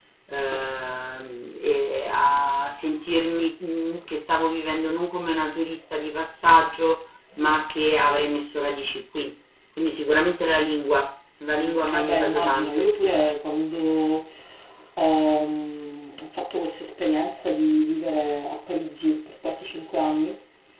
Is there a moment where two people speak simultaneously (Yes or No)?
Yes